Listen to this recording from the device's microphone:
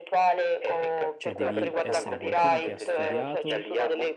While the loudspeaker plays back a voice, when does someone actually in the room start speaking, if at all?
1.2 s

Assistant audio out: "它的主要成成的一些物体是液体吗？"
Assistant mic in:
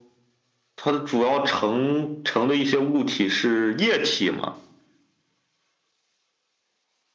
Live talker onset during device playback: none

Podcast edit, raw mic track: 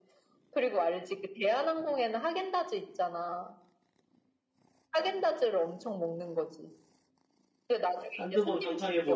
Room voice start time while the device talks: 8.2 s

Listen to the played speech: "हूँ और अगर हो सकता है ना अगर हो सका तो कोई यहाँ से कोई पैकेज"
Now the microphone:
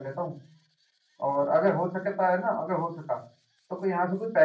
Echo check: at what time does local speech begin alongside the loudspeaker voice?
none

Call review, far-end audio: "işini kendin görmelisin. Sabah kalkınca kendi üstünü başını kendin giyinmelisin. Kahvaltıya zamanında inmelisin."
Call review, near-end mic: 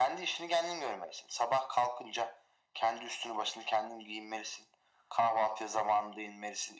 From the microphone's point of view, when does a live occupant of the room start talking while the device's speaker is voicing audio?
none

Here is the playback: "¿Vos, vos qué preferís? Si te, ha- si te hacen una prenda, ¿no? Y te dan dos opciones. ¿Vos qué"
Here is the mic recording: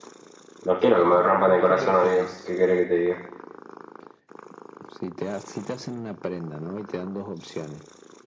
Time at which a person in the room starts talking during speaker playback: 0.7 s

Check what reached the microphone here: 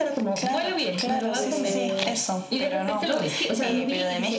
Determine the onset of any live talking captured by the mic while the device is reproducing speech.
1.3 s

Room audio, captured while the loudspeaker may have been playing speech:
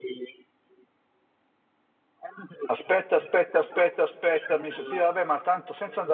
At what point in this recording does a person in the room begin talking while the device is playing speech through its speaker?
2.6 s

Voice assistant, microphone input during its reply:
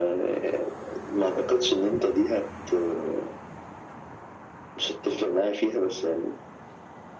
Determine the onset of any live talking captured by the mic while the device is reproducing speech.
none

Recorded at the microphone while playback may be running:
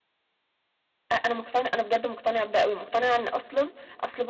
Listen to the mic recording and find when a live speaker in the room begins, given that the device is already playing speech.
1.1 s

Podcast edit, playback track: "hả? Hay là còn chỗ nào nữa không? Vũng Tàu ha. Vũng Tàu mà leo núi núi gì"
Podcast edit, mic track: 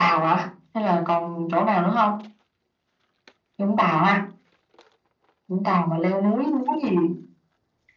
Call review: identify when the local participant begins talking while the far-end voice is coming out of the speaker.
none

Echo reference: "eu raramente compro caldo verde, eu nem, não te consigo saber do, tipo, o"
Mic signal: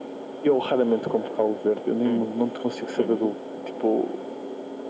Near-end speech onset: 2.0 s

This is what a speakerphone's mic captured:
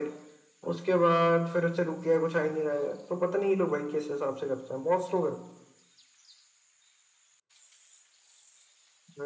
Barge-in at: none

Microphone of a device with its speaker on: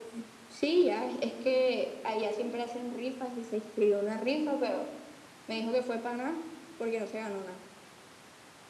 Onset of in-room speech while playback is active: none

